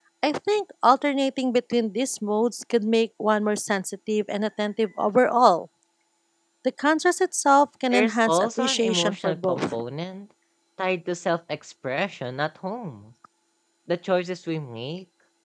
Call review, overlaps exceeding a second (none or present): present